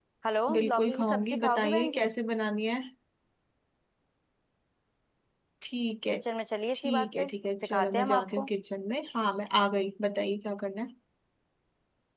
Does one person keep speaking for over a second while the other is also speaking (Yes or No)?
Yes